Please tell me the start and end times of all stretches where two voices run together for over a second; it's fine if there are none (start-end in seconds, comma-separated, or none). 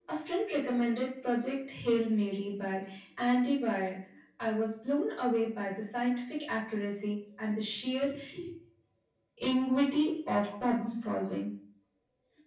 none